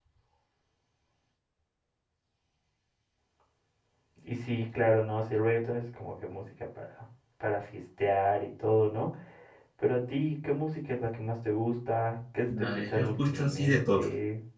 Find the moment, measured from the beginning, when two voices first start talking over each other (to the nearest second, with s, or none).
12 s